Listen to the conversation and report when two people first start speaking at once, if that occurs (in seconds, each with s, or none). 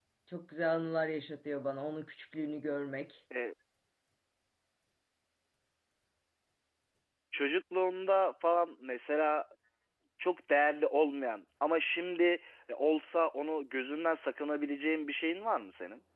none